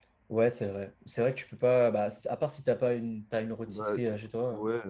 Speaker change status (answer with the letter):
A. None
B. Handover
B